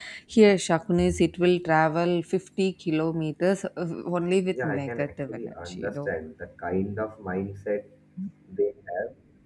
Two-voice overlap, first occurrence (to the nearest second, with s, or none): 5 s